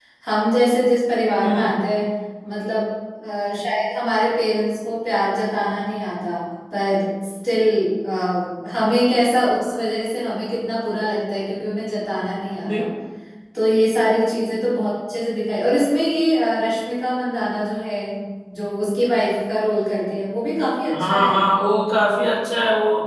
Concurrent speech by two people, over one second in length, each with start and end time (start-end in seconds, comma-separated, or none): none